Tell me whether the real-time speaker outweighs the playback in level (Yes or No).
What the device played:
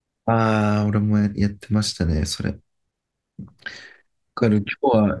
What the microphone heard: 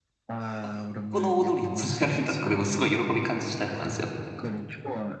Yes